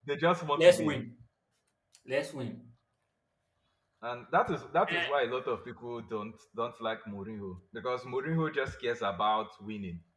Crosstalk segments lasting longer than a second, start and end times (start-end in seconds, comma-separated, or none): none